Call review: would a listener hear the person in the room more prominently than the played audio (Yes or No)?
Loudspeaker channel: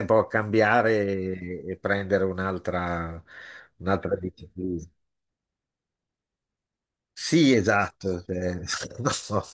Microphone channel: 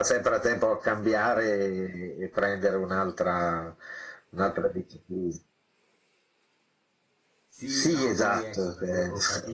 No